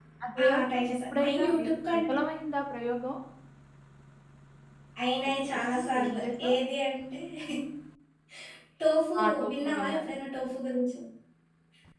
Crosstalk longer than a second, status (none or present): present